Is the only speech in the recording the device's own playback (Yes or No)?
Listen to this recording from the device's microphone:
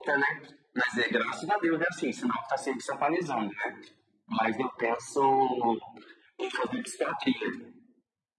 Yes